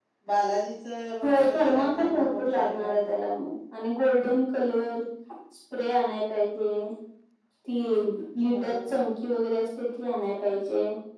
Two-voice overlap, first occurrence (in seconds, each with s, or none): 1.2 s